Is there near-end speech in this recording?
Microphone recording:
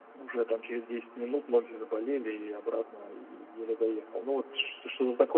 No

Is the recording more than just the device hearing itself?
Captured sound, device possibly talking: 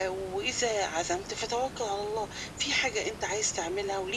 No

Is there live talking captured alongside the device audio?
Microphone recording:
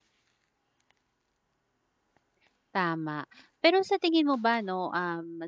Yes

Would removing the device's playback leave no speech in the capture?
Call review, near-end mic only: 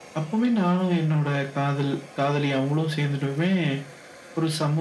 Yes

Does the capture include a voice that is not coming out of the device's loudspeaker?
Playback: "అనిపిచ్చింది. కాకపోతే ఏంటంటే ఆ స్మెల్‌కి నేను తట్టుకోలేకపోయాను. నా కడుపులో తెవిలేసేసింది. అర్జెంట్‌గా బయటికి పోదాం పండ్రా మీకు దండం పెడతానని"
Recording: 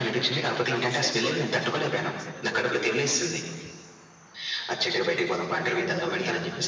Yes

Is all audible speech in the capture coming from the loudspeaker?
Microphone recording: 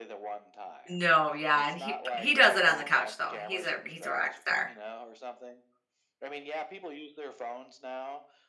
No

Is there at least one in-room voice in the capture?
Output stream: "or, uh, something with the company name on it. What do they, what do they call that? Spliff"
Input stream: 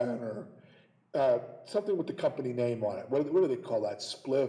No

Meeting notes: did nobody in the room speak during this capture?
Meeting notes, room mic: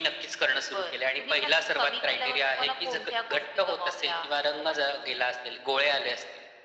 Yes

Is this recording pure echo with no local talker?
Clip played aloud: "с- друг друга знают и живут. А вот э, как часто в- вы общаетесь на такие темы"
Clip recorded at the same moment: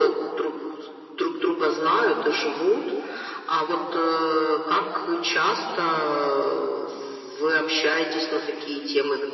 Yes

